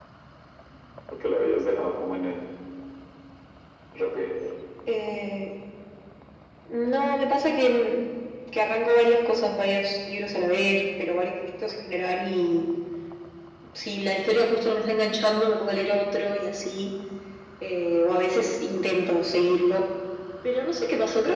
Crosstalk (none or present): none